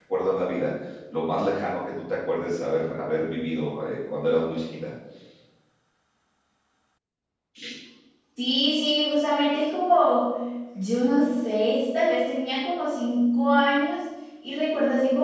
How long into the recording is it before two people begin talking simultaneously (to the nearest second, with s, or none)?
none